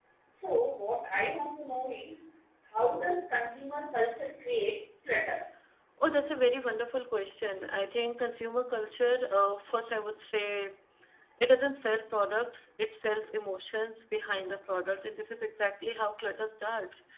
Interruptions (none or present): none